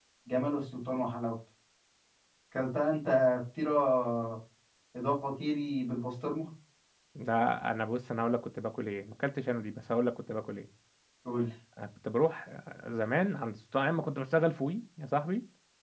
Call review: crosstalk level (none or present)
none